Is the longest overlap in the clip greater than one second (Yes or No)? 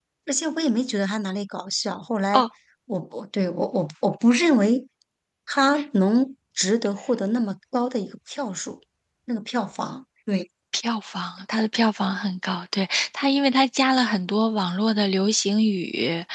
No